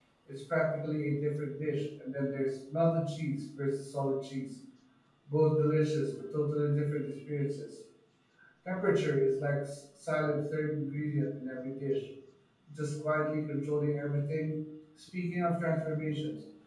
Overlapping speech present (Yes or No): No